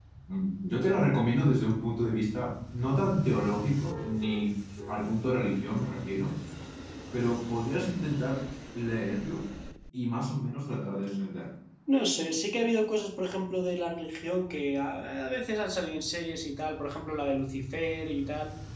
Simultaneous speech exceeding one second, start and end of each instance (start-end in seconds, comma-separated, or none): none